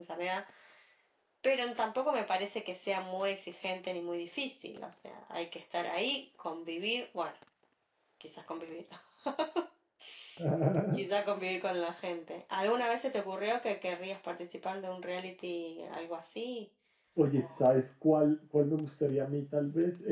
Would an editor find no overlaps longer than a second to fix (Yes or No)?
Yes